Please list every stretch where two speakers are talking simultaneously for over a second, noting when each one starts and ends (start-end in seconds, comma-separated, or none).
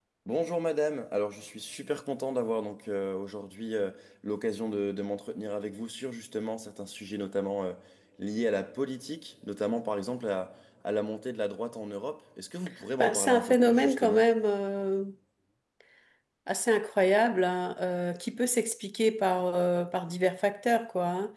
13.0-14.2